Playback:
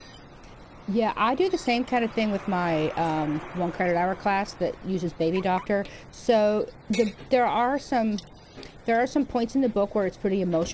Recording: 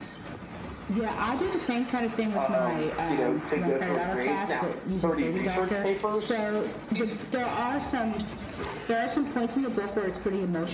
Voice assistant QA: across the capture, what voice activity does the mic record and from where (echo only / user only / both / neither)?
both